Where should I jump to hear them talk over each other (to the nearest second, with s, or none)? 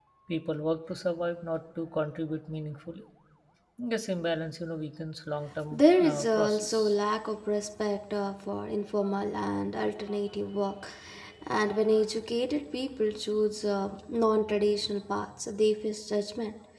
6 s